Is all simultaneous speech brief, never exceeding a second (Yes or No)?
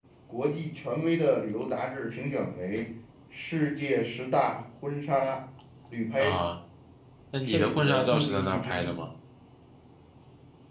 No